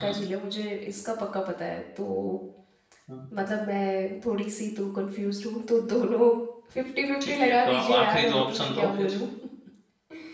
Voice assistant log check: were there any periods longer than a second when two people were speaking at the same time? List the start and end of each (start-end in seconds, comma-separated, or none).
7.3-9.2